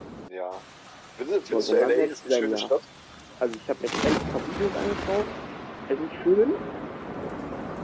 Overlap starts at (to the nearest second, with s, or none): 1 s